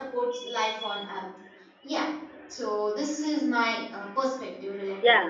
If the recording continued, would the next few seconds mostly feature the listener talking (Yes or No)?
Yes